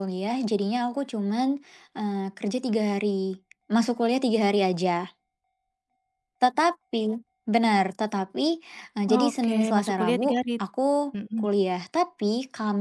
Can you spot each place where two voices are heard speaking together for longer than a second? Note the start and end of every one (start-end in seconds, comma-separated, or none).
9.1-10.4